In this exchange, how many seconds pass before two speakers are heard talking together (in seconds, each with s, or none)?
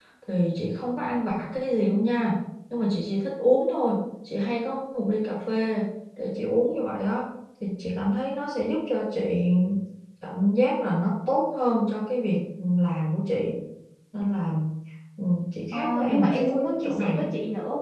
15.7 s